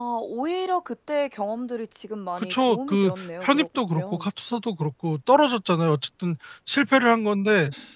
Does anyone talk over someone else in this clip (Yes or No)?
Yes